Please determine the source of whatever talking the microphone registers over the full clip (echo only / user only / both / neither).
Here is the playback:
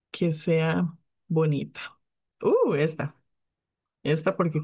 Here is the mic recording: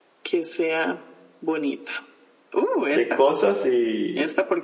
both